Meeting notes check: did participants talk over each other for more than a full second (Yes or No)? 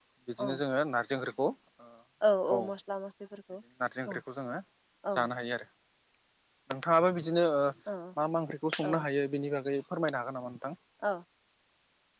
No